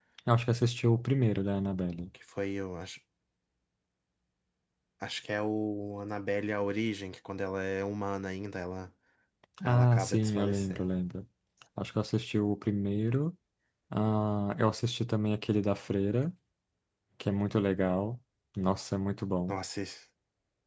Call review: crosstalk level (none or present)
present